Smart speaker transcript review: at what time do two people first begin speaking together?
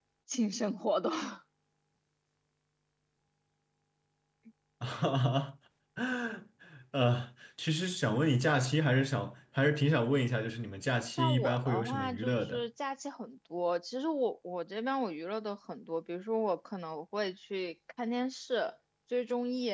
11.1 s

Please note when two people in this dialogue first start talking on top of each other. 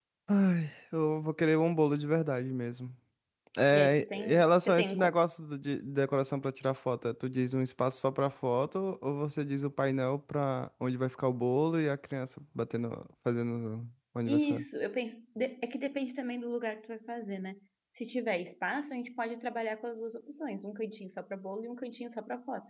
3.7 s

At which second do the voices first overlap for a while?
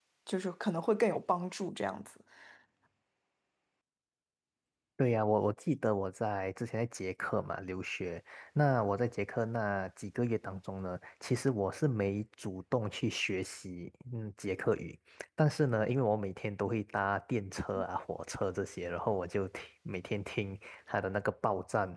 none

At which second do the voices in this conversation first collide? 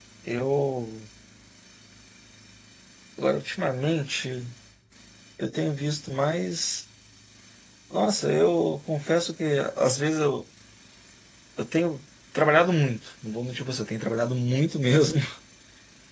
none

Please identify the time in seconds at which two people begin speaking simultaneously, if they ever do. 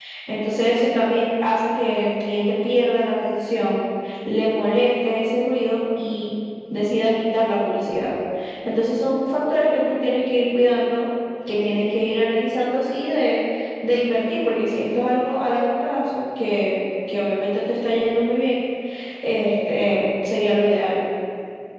none

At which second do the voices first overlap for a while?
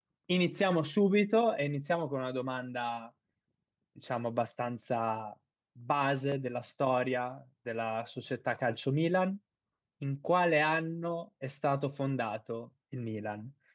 none

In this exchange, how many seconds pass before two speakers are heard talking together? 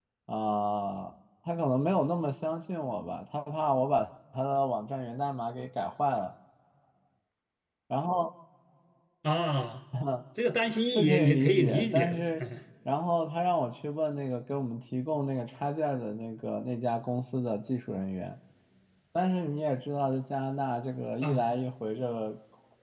10.9 s

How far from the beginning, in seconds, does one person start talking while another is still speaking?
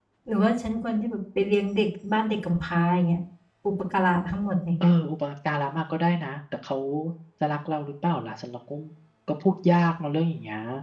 none

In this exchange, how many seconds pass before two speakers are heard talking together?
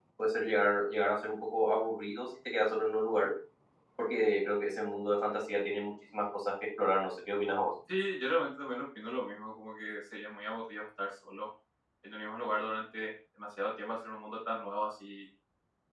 none

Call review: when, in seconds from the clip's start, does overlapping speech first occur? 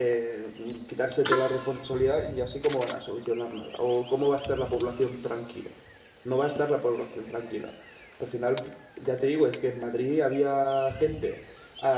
none

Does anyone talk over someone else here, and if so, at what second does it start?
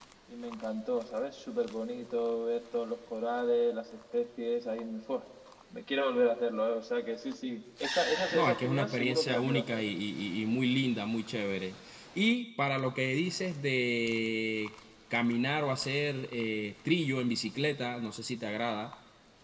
8.3 s

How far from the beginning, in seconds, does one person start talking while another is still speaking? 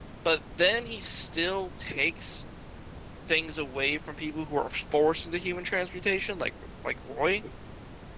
none

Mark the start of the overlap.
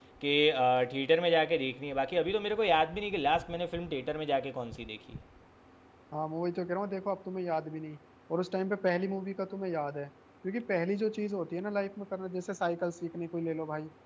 none

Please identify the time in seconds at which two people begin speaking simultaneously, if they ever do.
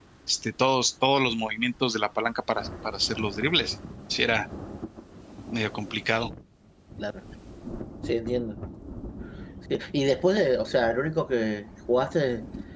none

